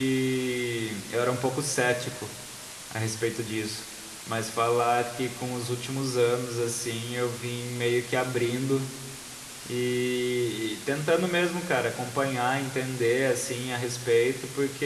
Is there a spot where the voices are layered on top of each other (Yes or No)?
No